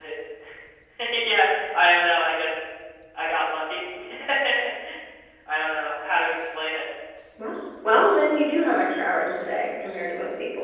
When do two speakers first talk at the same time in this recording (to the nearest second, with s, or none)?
none